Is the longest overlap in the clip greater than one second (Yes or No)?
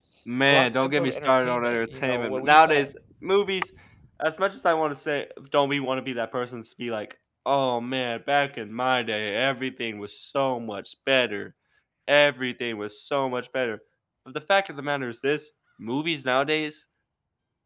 Yes